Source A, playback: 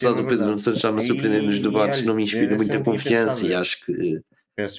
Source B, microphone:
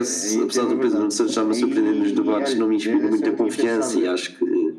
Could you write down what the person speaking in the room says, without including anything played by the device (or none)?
none